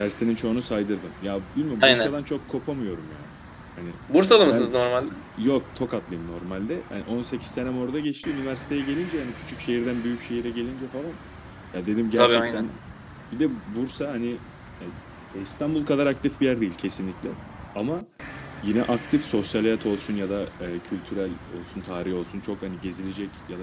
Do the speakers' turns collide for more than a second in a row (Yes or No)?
No